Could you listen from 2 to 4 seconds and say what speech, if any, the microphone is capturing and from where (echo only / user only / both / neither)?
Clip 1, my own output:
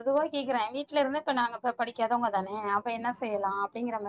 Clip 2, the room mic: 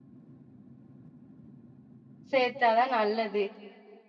user only